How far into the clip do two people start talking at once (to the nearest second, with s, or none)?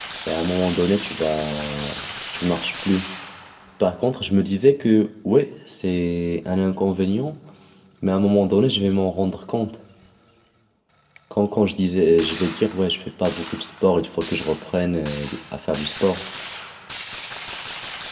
none